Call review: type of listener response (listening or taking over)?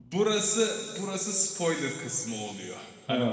listening